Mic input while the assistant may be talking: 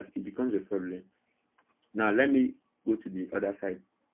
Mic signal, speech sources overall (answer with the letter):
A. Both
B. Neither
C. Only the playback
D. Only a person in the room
D